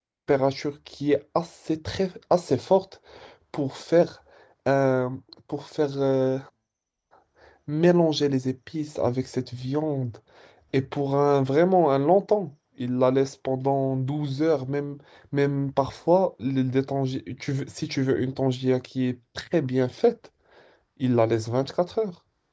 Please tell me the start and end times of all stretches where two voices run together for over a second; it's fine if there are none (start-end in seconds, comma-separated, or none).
none